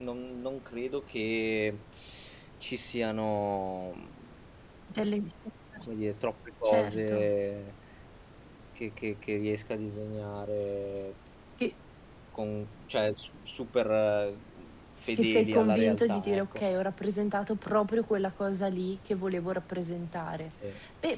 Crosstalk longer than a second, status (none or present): present